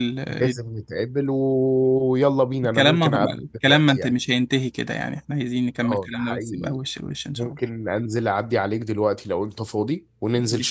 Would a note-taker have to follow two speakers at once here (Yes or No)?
Yes